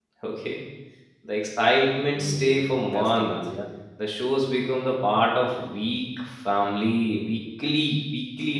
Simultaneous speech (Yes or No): Yes